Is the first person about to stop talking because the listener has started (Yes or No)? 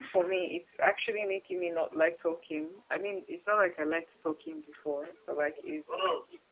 No